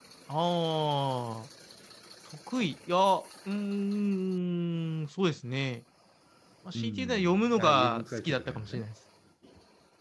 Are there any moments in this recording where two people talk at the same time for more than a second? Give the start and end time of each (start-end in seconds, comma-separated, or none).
6.7-8.9